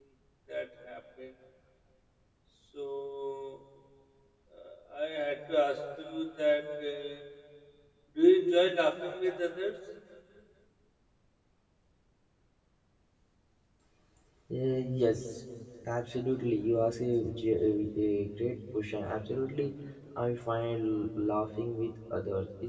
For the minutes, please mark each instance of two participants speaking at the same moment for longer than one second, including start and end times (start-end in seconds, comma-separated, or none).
none